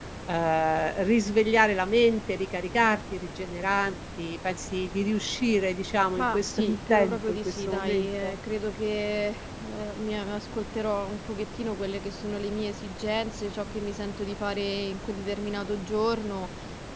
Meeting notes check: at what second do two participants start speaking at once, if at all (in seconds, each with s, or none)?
6.2 s